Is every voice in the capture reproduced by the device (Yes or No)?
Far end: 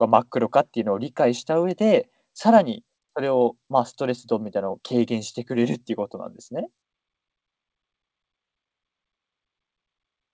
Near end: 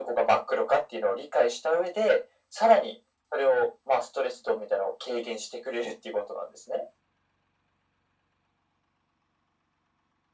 Yes